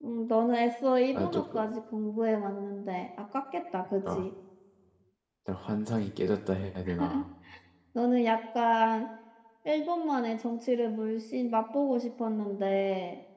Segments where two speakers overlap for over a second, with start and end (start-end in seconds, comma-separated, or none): none